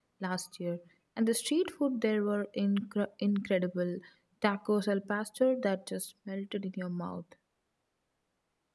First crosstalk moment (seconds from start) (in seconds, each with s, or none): none